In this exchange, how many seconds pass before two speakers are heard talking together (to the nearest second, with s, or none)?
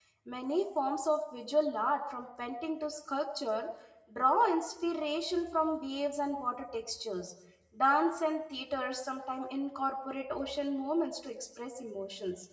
none